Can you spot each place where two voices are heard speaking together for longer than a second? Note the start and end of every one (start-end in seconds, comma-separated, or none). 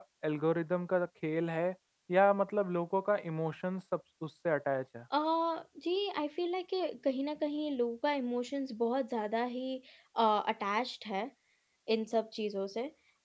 none